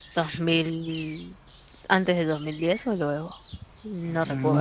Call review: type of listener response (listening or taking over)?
taking over